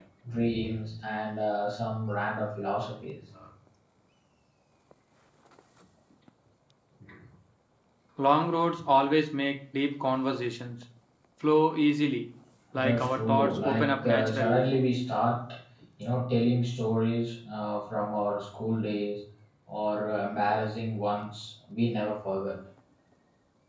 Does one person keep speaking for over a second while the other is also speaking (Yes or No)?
Yes